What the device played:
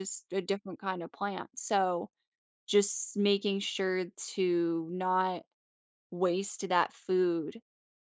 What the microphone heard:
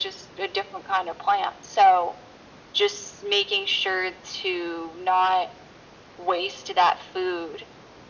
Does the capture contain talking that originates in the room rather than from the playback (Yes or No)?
No